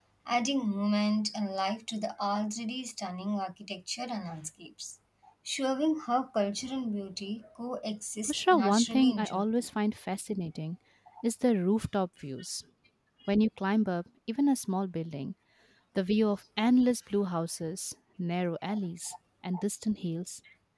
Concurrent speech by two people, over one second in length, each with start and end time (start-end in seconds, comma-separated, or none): 8.3-9.7